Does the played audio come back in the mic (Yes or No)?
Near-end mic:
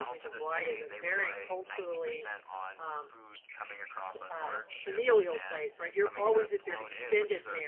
Yes